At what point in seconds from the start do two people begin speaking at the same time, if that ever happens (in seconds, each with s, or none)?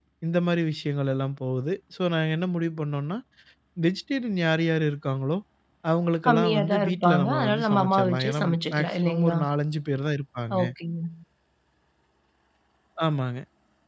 6.2 s